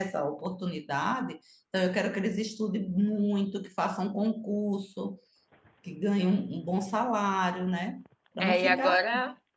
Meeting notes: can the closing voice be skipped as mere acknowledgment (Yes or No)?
No